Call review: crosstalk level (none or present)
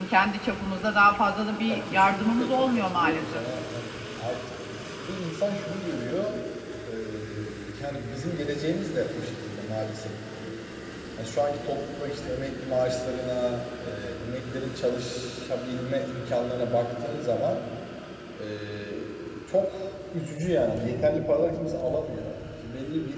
present